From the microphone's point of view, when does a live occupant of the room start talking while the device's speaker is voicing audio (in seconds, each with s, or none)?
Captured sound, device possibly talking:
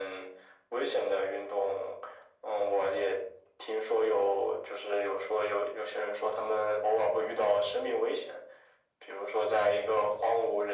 none